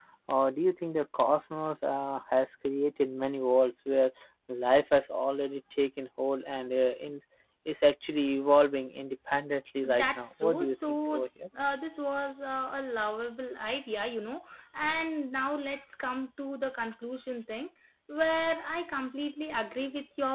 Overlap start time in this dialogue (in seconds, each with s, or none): 9.8 s